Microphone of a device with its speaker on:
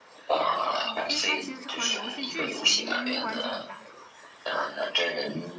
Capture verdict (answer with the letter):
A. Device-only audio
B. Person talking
B